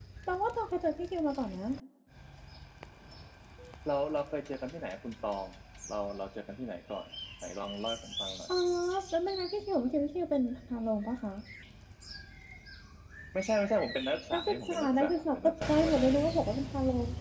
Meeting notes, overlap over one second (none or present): present